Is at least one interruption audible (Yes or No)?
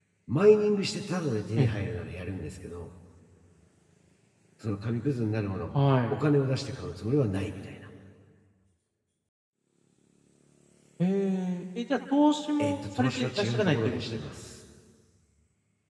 Yes